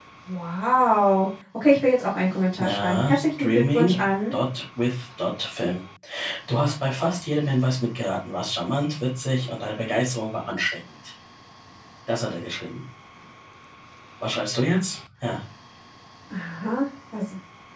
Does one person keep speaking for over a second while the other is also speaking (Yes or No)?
Yes